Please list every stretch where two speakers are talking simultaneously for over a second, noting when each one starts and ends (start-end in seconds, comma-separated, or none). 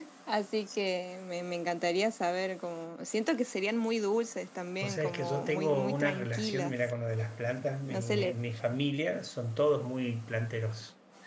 4.8-6.7